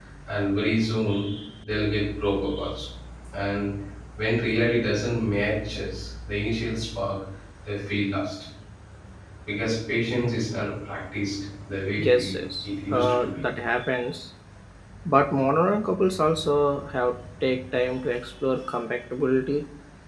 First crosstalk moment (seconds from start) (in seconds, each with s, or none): 12.0 s